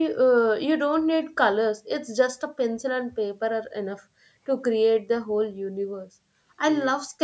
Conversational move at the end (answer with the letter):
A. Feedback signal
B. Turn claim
A